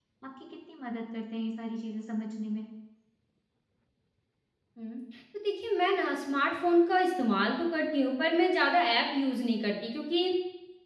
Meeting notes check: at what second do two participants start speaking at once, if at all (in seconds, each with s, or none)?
none